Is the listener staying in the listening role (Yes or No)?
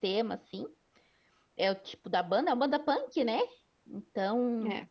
Yes